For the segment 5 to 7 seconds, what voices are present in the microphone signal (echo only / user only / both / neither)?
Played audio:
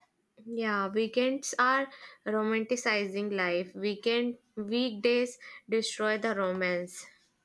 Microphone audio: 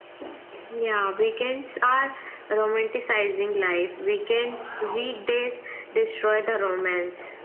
echo only